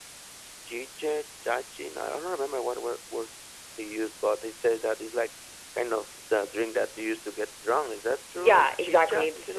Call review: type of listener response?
taking over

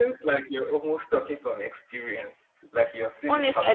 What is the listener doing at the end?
taking over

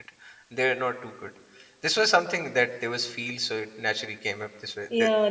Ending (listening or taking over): taking over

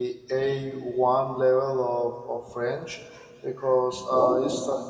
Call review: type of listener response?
listening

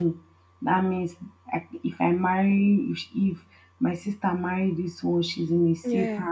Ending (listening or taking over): listening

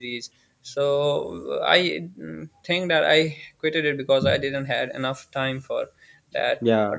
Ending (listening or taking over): listening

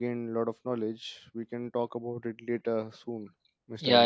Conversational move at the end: taking over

